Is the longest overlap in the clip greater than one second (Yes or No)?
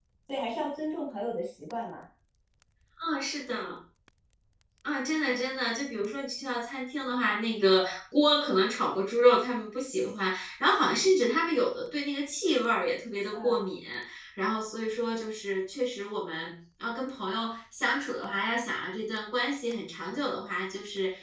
No